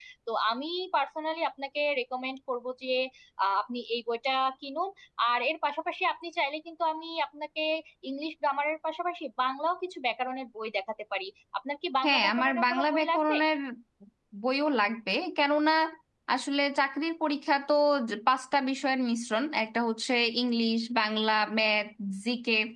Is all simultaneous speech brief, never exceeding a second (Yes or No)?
No